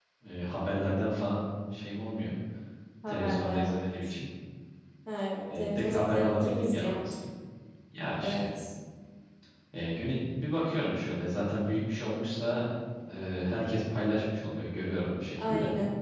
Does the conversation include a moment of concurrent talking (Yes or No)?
Yes